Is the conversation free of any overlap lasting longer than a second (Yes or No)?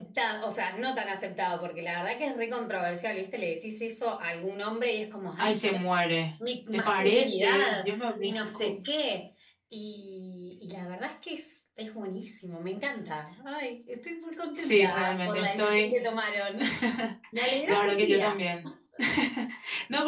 No